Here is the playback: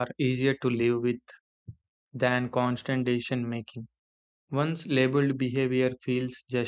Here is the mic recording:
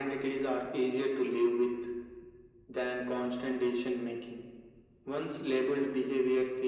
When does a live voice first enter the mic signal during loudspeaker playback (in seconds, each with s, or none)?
none